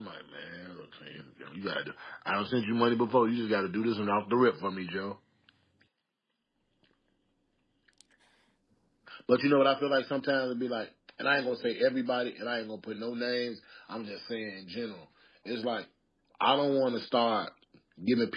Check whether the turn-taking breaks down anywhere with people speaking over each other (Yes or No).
No